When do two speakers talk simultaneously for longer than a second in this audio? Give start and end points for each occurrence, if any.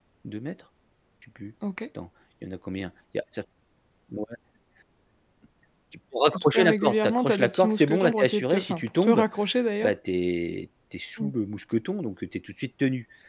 6.3-9.2

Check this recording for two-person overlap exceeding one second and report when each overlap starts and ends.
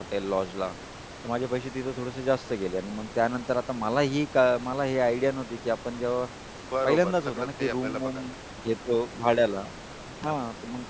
6.8-8.3

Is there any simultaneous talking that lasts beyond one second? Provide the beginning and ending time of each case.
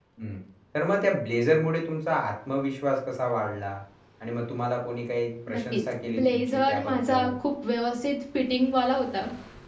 5.5-7.3

